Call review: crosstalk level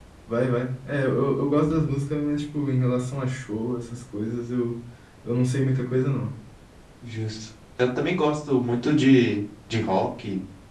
none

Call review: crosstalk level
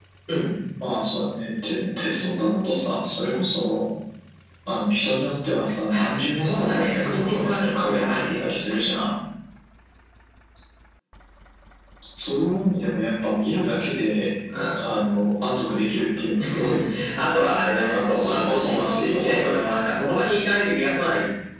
present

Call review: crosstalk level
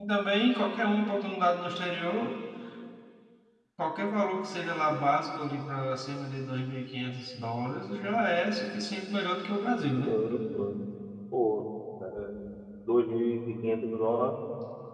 none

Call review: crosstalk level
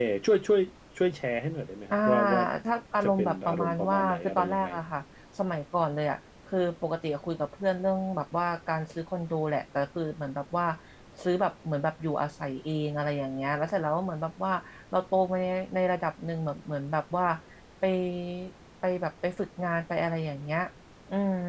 present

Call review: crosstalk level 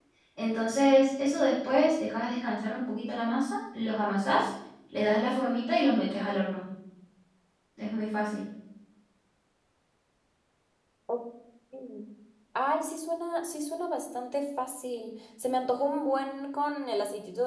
none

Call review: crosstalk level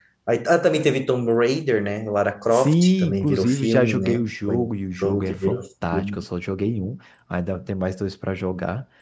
present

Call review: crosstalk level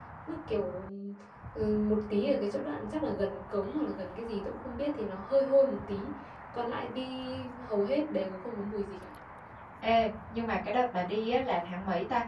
none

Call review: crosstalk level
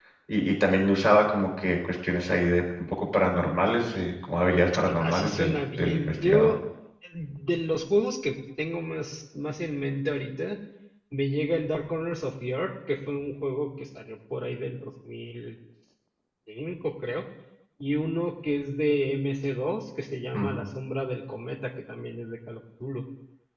present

